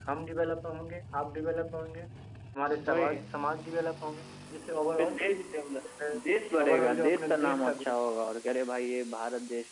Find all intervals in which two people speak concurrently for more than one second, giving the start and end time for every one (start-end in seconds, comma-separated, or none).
6.6-7.9